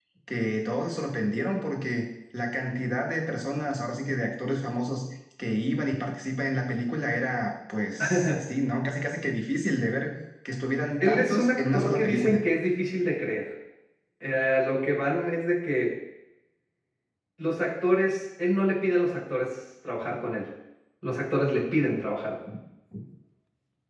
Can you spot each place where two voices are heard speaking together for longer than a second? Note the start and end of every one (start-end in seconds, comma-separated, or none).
11.0-12.4